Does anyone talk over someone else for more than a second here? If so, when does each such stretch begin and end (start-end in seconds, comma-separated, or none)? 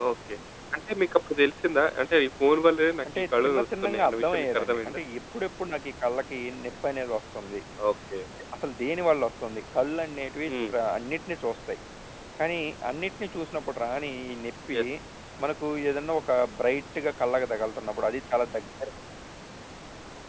3.2-5.0